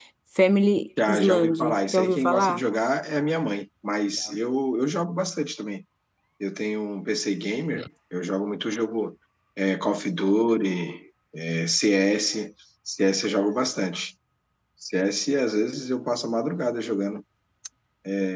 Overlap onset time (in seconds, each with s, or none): 1.1 s